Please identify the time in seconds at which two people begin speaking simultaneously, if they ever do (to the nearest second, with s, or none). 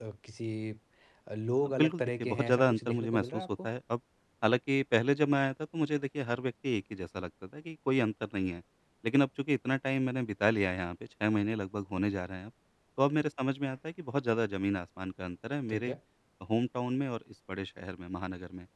2 s